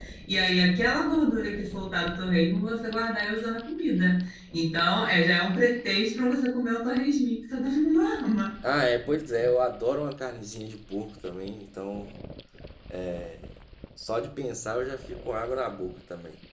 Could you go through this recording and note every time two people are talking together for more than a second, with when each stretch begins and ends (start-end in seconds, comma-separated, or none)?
none